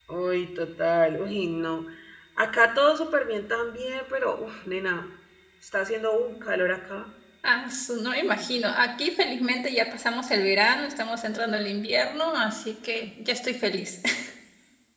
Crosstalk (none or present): none